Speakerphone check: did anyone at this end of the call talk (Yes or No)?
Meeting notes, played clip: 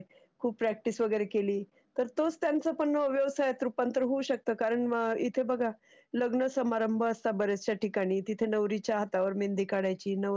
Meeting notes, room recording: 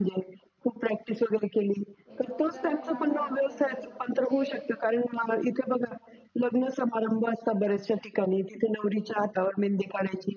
Yes